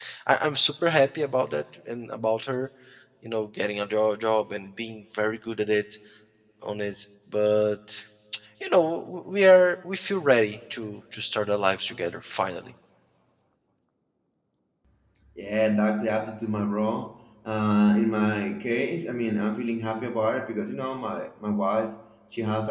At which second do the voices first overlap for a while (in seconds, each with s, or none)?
none